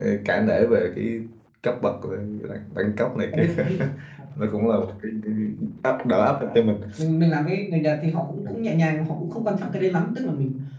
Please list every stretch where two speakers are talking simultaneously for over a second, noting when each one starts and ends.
none

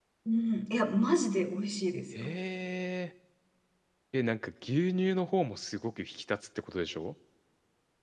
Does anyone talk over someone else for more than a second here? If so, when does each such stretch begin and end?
none

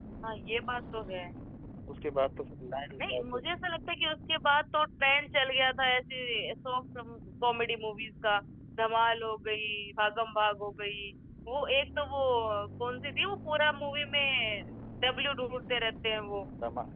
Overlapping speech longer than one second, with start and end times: none

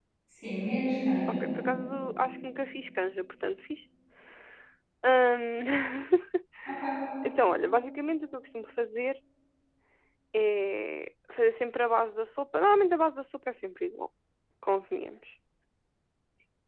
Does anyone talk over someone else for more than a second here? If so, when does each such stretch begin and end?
none

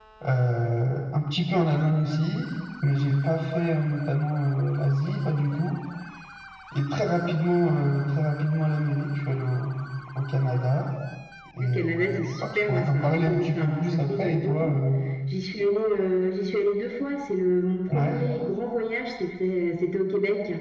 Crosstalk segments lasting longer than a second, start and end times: 11.7-14.8

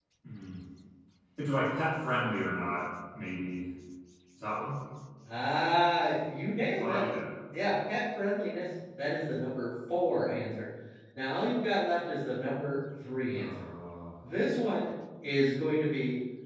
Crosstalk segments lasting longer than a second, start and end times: none

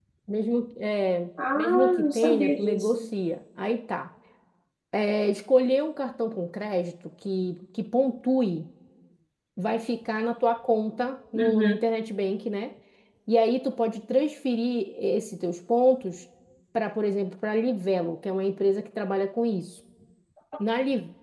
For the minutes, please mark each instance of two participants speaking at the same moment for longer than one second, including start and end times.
1.6-3.1

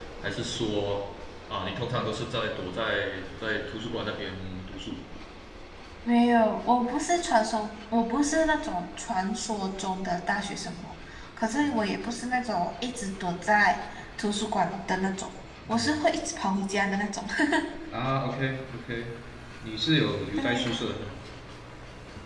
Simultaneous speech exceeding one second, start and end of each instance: none

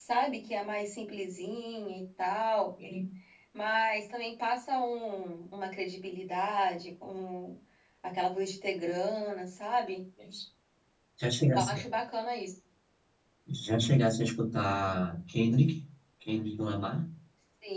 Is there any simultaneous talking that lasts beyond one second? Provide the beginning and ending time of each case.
none

